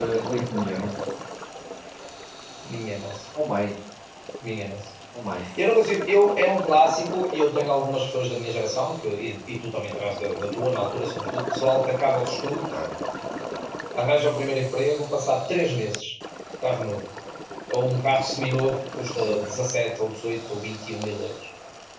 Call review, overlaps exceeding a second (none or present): none